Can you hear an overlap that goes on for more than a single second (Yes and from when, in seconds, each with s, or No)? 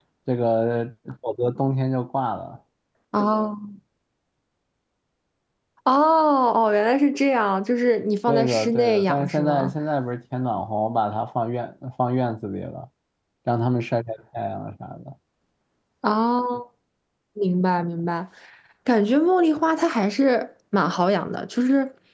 Yes, from 8.3 s